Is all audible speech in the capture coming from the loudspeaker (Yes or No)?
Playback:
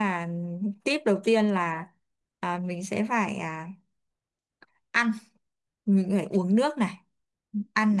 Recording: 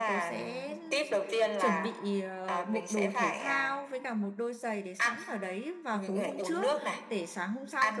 No